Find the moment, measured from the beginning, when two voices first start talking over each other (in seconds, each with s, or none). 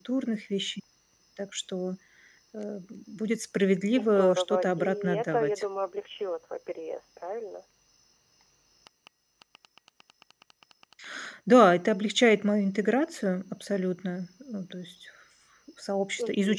4.0 s